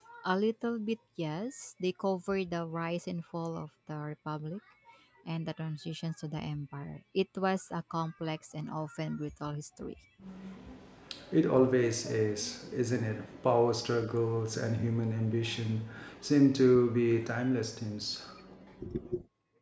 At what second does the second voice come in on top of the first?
none

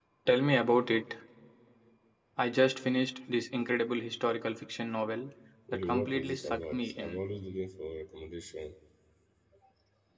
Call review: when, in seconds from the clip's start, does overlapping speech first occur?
5.7 s

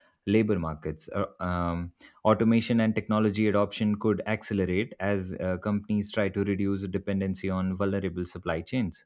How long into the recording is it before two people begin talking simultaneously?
none

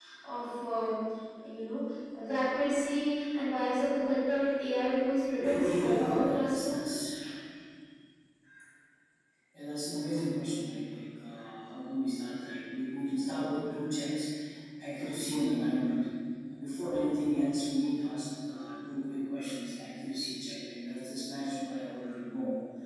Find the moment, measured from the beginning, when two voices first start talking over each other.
5.4 s

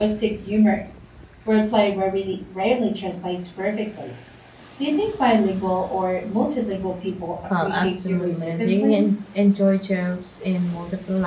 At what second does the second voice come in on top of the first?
7.5 s

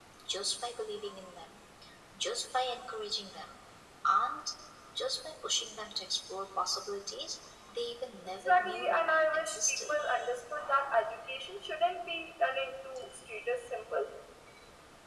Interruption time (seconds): 8.4 s

